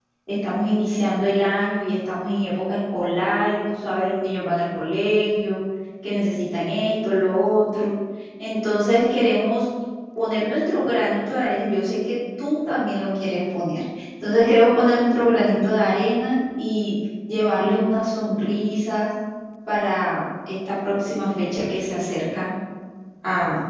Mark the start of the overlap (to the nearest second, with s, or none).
none